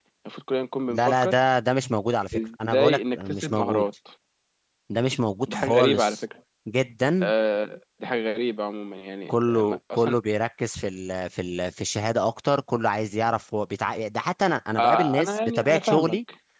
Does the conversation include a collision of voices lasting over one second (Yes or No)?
Yes